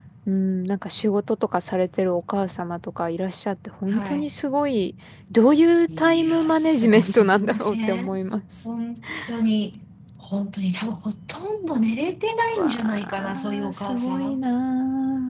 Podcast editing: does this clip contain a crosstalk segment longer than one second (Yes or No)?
Yes